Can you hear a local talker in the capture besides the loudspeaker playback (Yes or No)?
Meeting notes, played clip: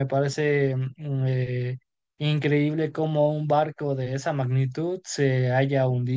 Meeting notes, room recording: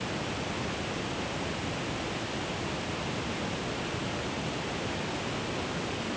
No